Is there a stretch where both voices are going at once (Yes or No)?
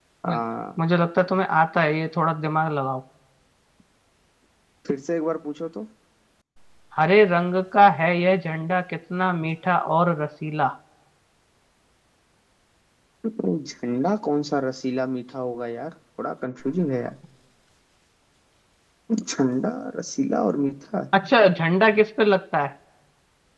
No